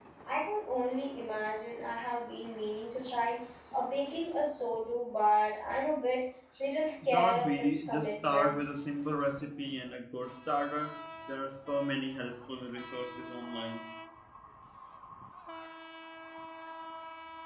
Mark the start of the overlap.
7.0 s

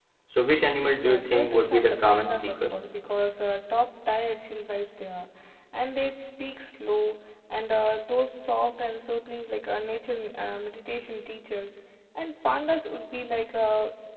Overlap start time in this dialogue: 0.9 s

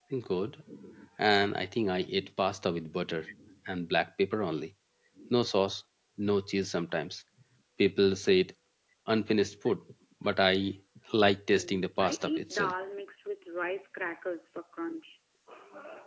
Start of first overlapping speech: 11.5 s

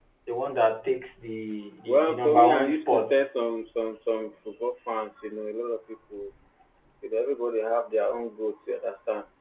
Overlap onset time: 1.9 s

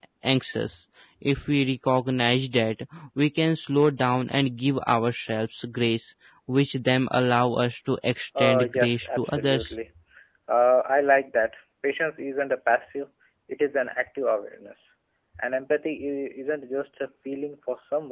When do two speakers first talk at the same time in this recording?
8.4 s

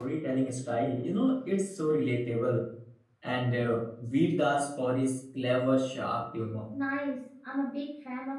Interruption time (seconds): none

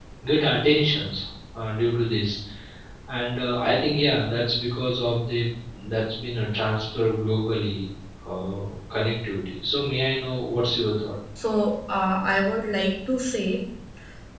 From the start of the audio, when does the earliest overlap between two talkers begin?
none

